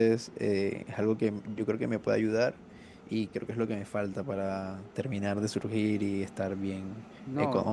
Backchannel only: Yes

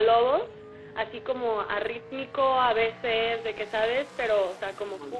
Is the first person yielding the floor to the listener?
No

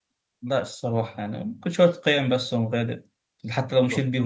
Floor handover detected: No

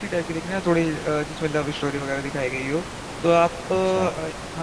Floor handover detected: No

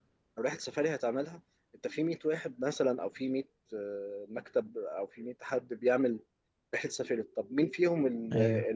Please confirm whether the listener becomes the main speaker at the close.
No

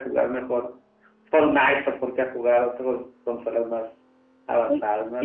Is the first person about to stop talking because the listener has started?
Yes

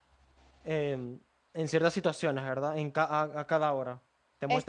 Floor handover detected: No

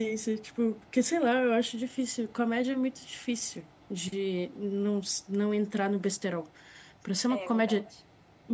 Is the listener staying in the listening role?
Yes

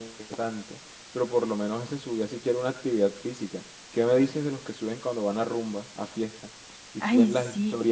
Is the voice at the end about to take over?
No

